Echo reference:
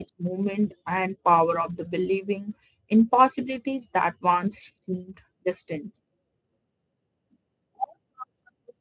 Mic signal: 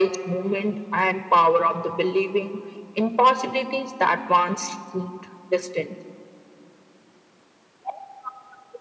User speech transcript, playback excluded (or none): none